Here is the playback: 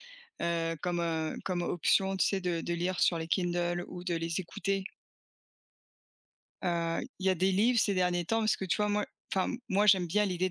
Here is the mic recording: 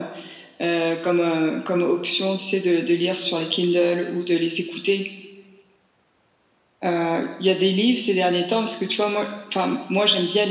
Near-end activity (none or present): none